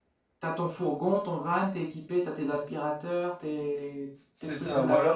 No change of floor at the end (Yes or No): No